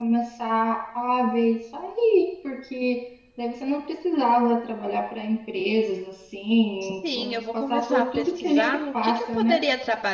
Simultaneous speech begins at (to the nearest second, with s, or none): 7 s